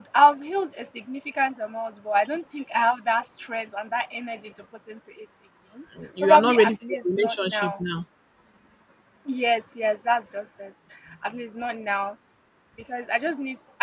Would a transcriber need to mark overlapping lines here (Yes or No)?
Yes